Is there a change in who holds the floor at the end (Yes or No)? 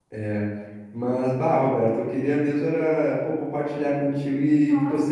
Yes